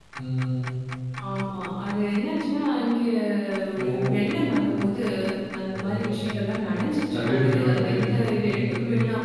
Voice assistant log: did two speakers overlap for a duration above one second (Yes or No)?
Yes